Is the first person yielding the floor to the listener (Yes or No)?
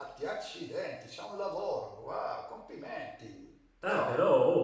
Yes